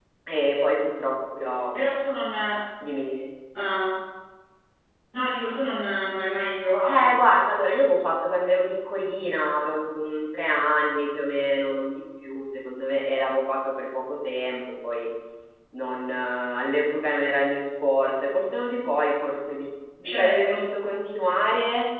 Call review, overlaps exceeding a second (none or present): none